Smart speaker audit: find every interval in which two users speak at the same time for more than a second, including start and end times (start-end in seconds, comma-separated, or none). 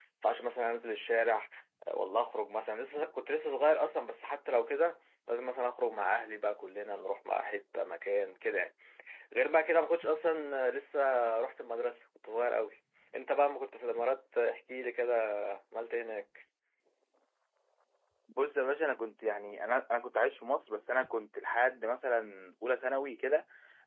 none